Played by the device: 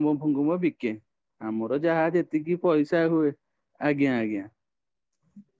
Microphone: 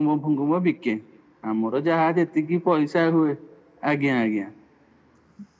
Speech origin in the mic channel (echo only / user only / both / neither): echo only